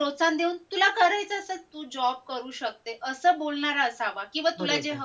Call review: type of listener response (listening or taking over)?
listening